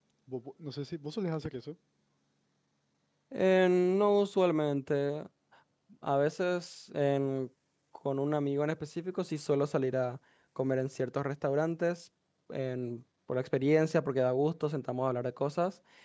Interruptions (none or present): none